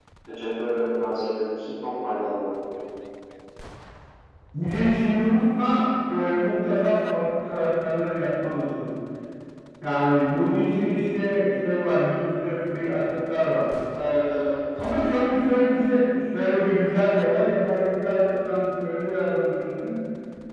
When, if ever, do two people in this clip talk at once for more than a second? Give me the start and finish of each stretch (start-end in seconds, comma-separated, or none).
none